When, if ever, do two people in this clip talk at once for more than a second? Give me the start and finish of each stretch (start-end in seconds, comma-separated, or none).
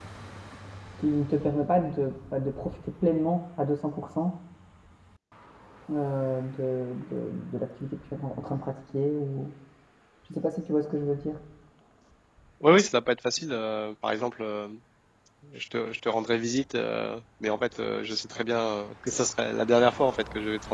none